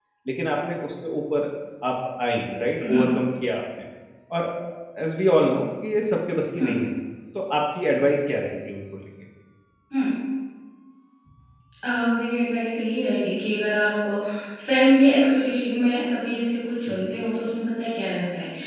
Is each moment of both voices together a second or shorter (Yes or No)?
Yes